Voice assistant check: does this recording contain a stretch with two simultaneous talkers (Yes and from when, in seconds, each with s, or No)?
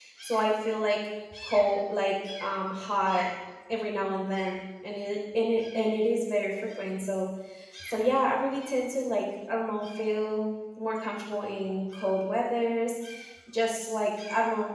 No